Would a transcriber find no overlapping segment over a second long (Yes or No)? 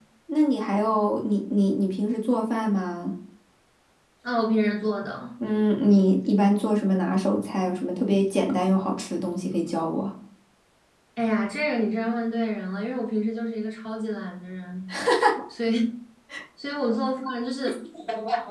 Yes